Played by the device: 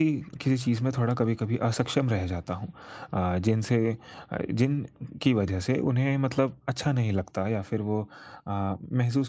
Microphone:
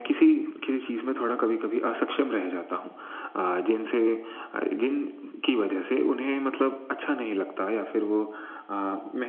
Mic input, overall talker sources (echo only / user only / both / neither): echo only